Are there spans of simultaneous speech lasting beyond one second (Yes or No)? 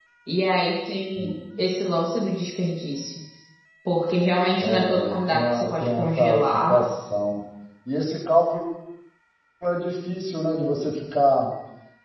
Yes